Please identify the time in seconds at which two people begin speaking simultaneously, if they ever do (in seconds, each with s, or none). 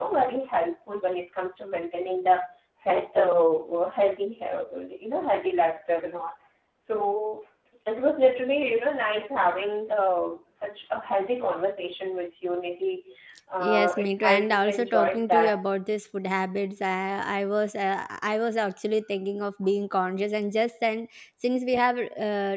13.6 s